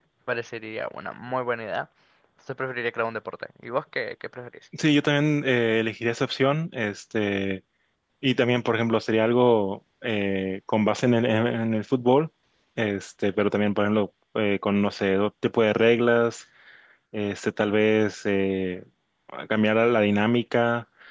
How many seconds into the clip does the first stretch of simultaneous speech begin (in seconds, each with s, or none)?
none